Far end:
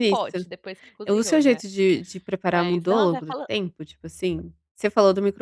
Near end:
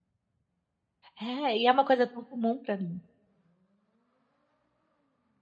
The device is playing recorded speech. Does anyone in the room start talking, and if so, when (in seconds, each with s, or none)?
1.2 s